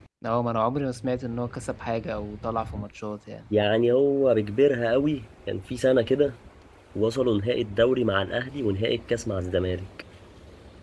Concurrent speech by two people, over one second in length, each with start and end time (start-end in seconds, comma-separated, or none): none